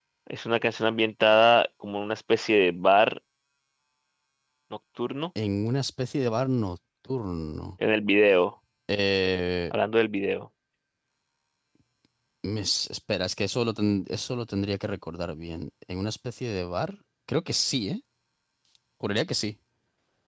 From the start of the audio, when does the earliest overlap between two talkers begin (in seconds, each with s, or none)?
none